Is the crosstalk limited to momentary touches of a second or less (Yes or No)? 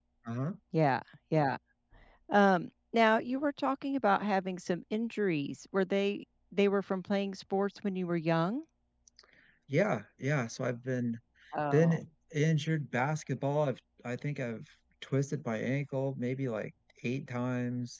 Yes